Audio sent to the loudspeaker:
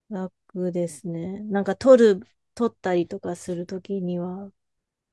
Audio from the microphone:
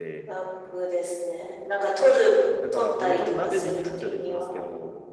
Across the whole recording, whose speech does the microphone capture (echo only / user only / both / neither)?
both